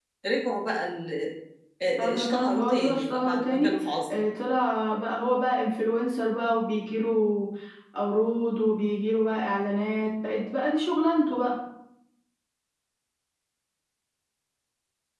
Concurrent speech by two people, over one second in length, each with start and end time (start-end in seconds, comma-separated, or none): 2.0-3.8